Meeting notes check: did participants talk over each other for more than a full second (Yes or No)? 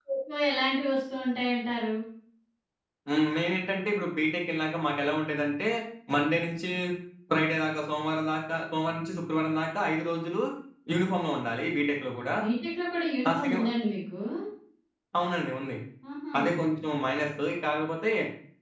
No